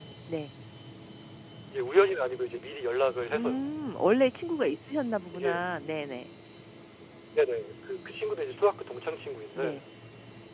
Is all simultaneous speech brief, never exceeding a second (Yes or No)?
Yes